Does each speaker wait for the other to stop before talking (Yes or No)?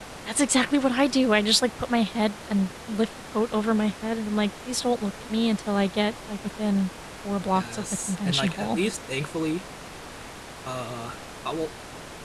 No